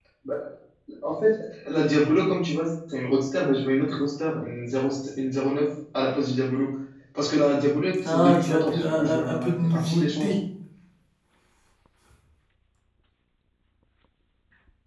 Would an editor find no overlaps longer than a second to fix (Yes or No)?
No